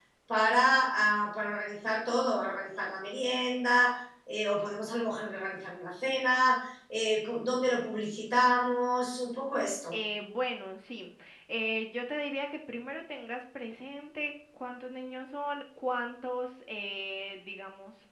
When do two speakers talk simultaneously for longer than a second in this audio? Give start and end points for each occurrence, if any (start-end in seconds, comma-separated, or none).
none